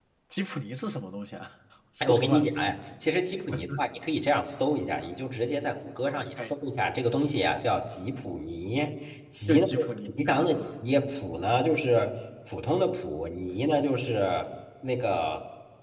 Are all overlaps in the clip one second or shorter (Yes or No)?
No